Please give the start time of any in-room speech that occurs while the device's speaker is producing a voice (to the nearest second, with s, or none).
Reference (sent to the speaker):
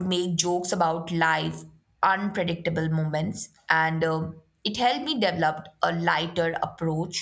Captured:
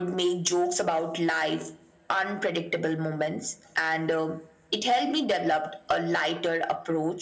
none